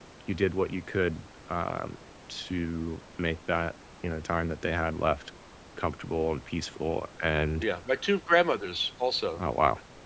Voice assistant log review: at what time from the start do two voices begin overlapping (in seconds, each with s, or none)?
none